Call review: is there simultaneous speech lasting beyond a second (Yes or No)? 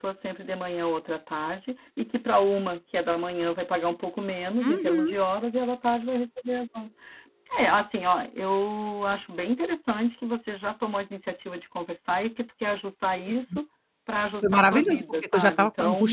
Yes